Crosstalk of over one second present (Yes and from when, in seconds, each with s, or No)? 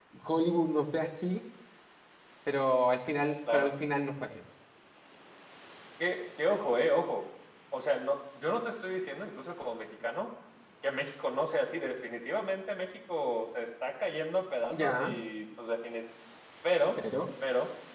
No